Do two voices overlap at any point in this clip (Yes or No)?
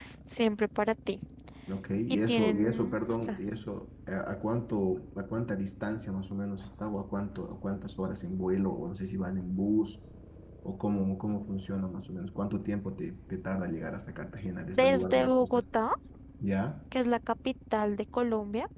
Yes